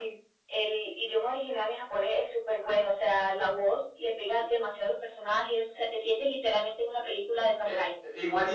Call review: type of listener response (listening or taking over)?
taking over